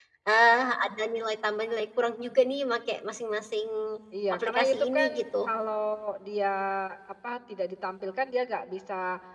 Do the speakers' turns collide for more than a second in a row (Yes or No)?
Yes